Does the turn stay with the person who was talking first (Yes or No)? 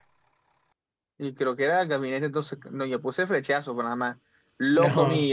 Yes